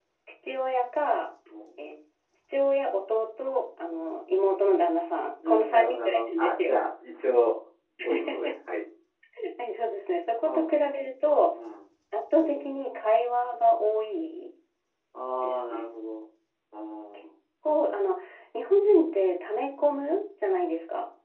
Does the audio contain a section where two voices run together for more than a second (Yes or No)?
Yes